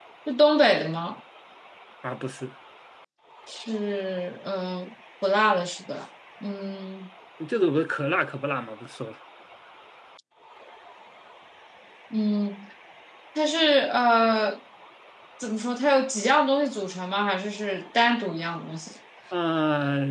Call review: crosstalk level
none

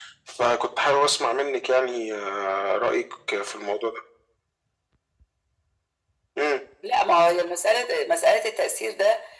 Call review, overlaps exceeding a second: none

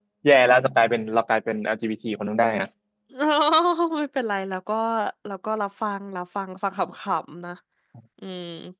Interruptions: none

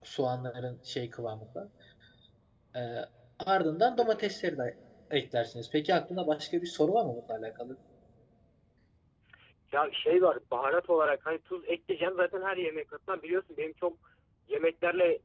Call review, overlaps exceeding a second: none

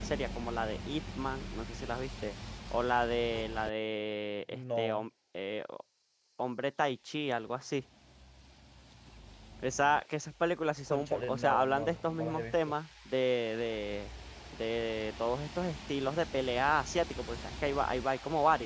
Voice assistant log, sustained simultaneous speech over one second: present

